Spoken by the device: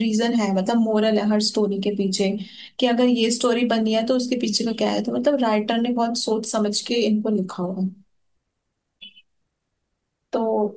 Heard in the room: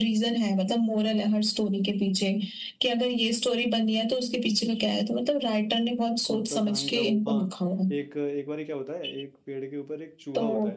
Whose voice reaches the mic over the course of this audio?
both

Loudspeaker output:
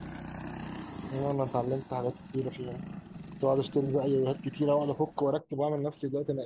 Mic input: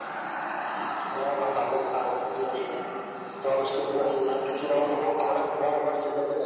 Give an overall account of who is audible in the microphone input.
echo only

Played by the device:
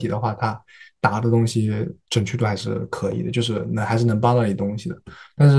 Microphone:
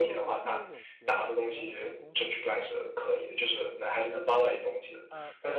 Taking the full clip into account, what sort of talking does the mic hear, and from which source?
both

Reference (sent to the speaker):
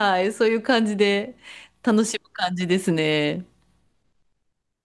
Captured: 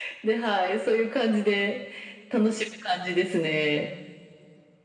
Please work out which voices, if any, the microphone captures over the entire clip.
echo only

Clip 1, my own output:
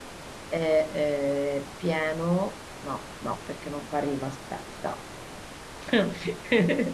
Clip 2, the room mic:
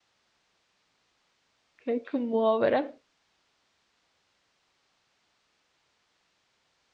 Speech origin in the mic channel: user only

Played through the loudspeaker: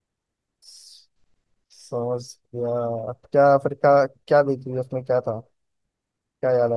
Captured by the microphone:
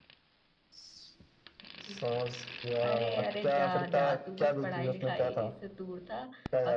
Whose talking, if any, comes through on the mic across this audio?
both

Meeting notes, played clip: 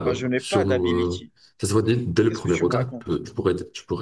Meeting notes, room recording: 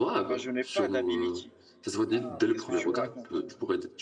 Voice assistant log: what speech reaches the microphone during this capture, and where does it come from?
both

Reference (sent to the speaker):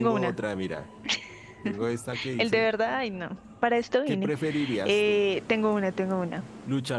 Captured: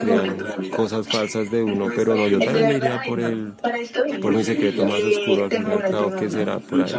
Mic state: both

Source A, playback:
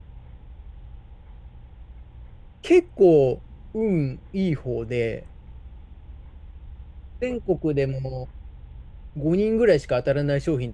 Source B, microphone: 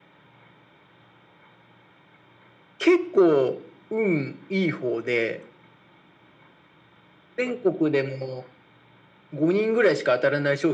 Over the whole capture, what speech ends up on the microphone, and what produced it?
echo only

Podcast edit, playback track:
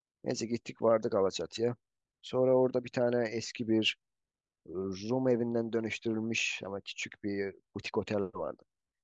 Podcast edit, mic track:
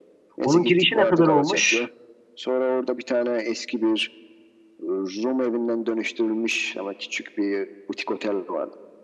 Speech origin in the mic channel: both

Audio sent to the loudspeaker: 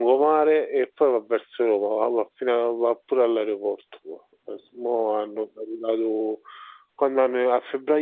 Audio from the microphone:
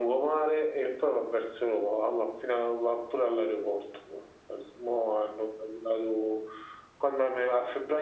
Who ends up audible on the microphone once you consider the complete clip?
echo only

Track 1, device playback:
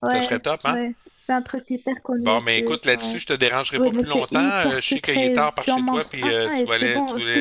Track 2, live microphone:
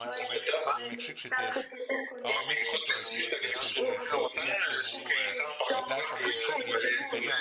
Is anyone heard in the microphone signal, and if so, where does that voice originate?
both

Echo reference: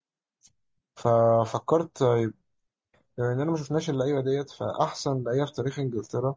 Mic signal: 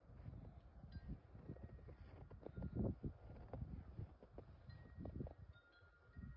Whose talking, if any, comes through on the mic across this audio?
neither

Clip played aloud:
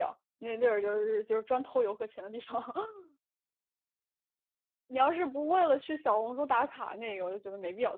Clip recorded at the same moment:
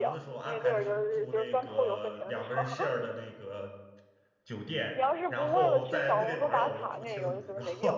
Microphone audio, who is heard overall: both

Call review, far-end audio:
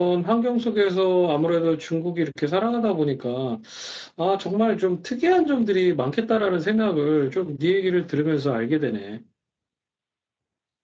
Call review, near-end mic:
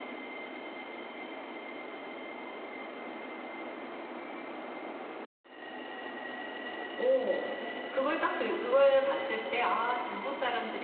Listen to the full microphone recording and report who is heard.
user only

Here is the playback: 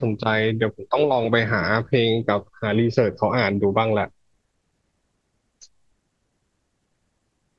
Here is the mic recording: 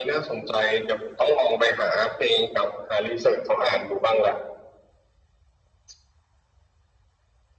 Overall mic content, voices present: echo only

